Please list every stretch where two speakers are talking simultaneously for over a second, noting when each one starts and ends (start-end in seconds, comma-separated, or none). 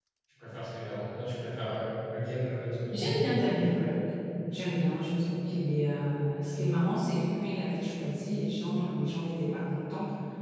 none